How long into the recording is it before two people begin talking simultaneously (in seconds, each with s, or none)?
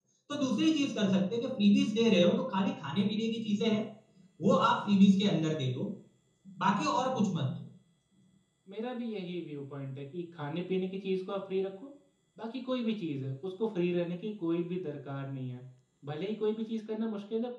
none